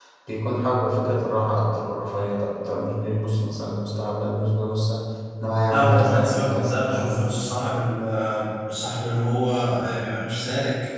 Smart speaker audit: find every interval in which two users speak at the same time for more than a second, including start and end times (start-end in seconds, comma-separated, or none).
5.7-7.3